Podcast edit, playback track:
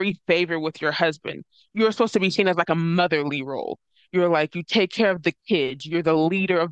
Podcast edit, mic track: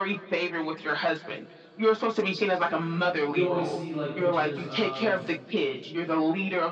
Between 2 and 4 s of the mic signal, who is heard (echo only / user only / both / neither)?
both